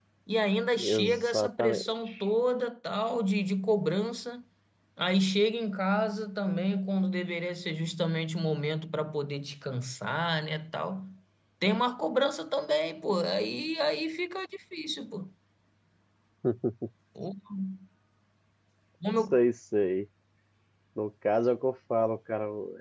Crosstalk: present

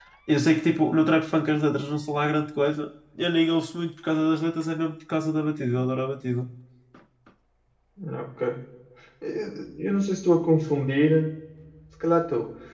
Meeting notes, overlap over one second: none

